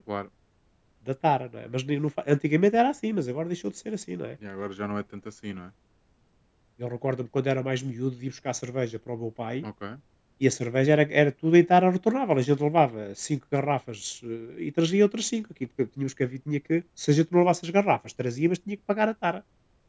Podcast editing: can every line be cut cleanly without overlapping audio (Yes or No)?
Yes